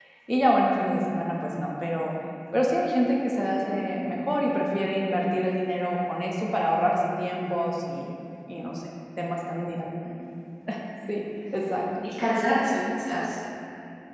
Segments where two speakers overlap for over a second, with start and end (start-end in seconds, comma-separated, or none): none